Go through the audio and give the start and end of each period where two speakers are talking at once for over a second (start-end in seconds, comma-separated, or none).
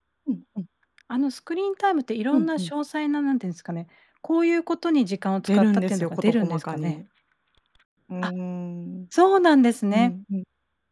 5.5-7.0